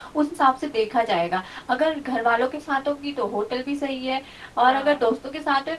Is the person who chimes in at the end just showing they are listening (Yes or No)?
Yes